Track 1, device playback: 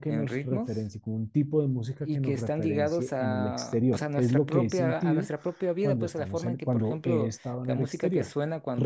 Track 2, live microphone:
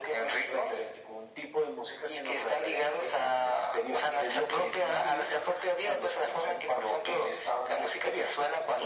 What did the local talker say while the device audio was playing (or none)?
none